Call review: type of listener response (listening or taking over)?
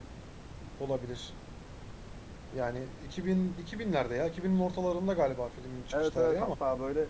taking over